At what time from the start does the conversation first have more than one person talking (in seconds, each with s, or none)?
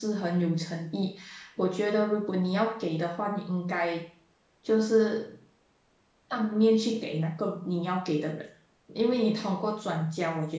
none